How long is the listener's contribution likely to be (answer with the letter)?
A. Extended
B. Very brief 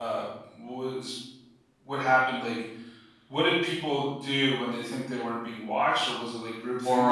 A